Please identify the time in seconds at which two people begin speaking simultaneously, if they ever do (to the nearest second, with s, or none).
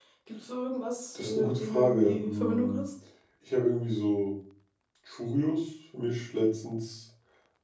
1 s